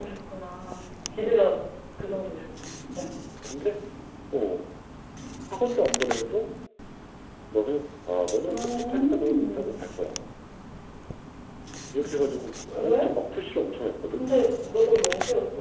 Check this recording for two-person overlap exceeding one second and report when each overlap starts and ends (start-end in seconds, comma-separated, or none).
8.5-9.7